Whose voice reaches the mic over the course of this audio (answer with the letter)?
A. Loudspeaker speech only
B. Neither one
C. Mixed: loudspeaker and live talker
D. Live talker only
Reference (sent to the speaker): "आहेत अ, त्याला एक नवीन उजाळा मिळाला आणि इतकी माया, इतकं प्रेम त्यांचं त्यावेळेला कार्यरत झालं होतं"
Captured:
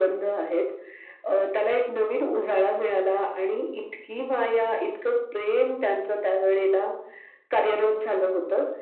A